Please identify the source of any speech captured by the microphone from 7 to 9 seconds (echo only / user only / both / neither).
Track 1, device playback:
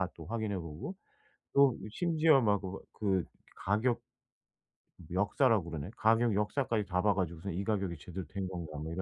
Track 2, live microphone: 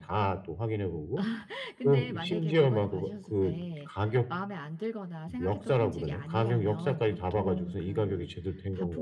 both